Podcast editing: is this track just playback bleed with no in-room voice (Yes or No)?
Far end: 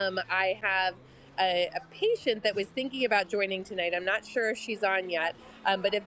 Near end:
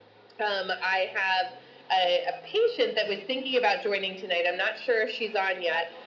Yes